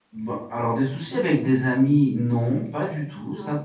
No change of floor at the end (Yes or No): Yes